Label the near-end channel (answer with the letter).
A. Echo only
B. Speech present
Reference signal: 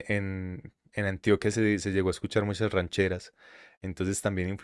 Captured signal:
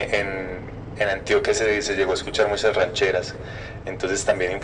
A